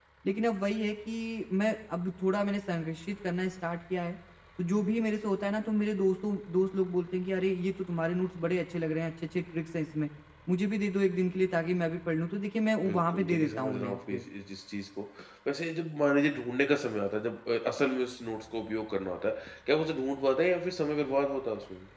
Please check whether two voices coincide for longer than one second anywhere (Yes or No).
Yes